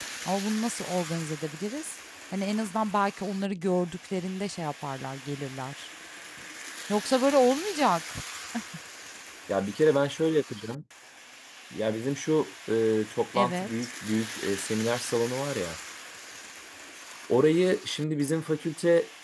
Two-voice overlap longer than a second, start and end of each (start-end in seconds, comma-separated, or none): none